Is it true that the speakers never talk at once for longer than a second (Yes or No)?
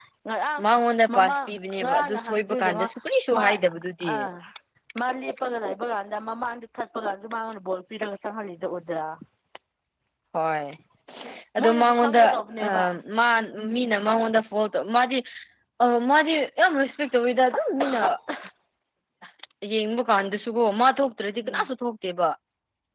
No